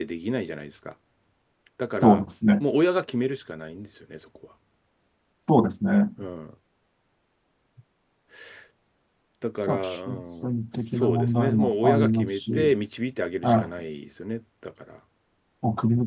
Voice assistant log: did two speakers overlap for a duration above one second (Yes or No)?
Yes